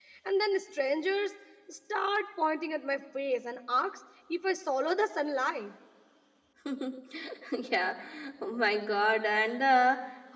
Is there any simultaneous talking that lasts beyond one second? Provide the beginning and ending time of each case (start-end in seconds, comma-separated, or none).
none